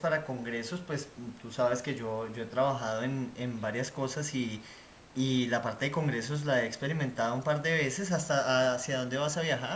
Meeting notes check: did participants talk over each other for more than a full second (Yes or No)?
No